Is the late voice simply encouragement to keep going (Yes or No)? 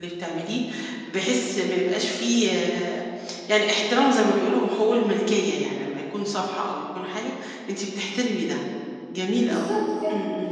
No